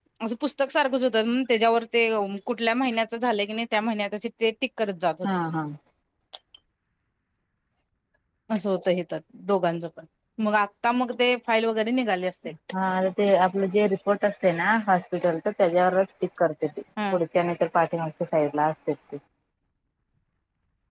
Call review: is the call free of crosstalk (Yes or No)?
Yes